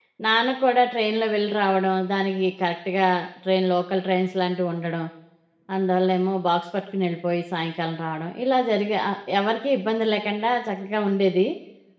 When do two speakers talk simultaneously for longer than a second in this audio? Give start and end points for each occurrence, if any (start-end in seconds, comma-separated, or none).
none